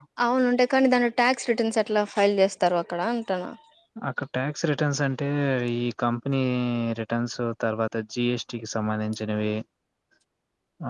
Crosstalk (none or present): none